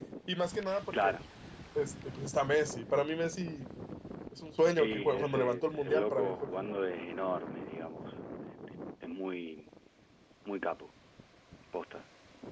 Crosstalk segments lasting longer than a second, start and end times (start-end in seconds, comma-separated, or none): 4.8-6.8